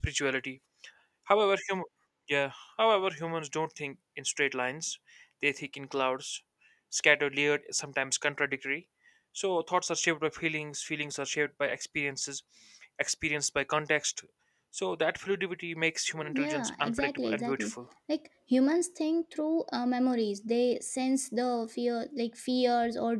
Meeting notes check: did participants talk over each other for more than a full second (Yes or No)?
Yes